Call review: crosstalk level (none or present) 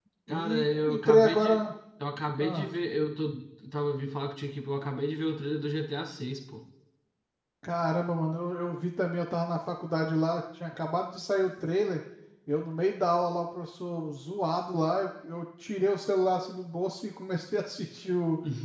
present